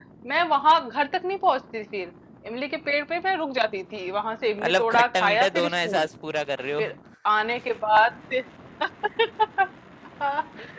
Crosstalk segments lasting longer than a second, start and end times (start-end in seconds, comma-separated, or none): 4.6-6.1